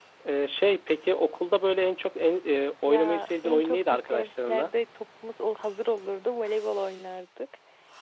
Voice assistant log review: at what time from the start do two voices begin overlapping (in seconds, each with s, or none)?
2.9 s